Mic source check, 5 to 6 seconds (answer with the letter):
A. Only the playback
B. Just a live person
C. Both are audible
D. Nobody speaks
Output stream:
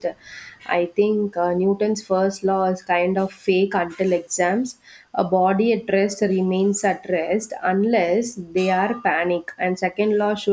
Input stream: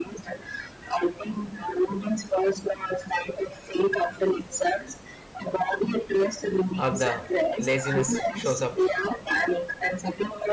A